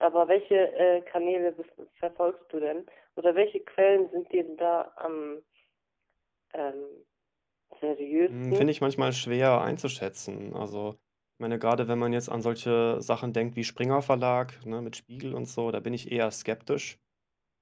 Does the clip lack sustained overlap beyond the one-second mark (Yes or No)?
Yes